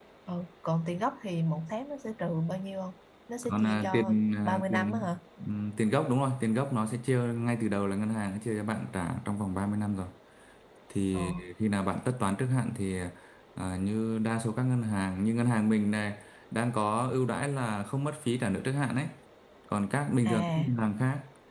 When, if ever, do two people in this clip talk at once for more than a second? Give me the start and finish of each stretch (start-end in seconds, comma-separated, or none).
3.4-5.1